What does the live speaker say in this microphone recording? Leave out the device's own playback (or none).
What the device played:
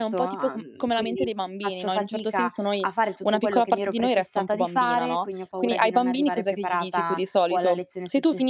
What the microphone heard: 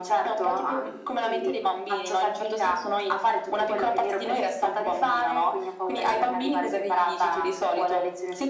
none